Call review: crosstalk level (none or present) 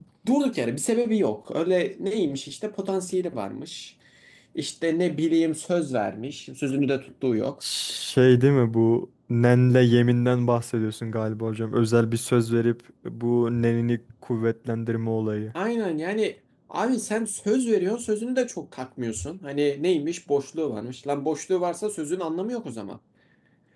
none